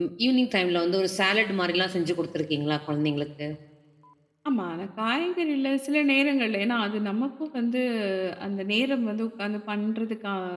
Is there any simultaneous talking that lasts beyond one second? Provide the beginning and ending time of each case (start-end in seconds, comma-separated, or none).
none